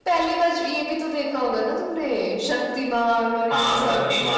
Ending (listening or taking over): taking over